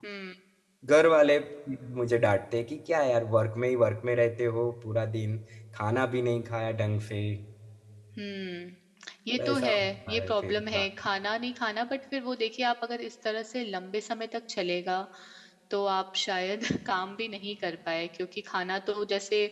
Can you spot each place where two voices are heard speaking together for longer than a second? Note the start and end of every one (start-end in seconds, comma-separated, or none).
9.4-10.9